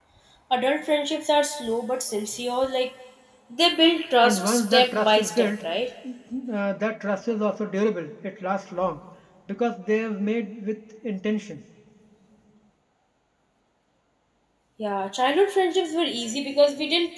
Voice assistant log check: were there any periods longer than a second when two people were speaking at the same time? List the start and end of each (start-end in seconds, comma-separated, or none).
4.2-5.6